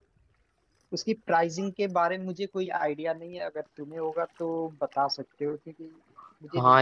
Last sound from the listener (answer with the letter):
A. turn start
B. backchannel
A